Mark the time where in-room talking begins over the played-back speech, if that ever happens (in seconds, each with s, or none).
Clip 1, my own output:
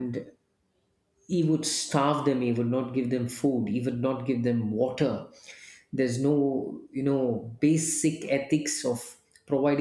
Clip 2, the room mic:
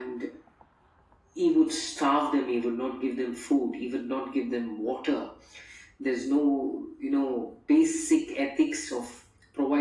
none